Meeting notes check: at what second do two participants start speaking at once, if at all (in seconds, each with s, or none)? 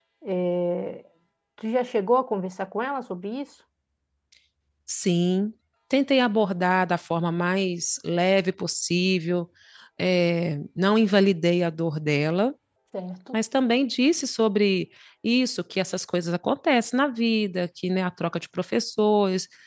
none